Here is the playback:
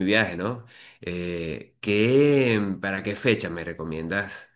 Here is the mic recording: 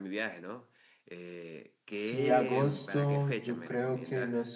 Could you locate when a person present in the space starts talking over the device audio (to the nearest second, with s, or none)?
2 s